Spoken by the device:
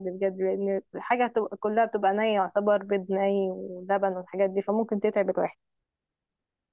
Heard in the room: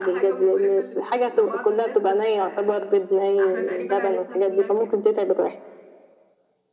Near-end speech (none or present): present